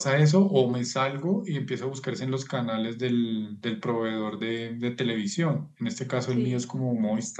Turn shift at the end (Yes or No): No